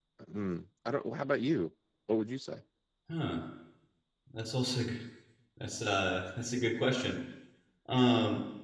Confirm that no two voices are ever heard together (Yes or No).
Yes